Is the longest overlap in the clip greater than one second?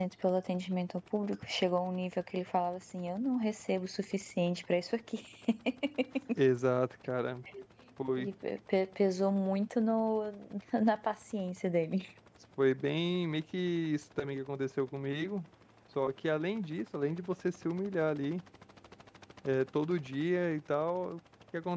No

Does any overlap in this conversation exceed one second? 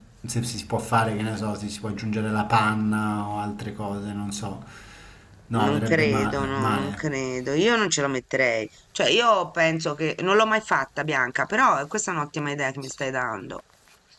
Yes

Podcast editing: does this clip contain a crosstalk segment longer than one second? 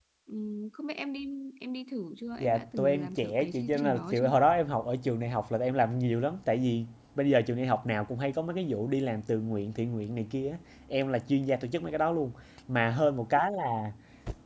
Yes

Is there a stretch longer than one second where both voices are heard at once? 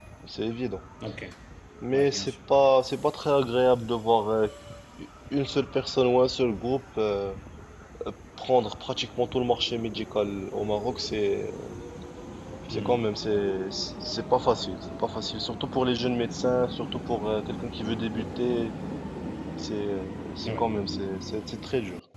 No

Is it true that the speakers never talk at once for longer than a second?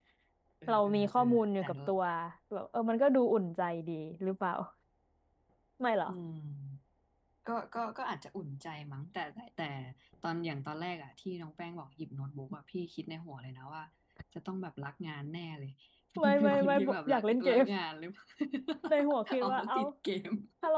No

